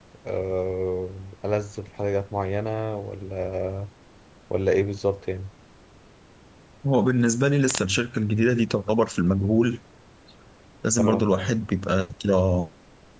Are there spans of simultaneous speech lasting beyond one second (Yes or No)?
No